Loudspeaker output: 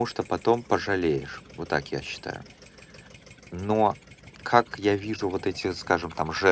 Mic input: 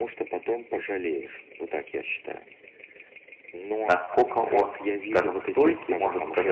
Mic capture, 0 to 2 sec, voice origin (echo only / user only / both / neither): echo only